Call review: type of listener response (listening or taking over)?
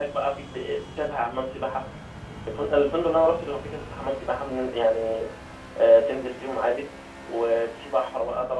listening